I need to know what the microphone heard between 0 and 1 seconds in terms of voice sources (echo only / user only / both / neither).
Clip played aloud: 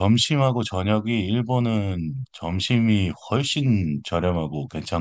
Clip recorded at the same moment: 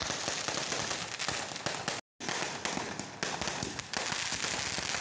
neither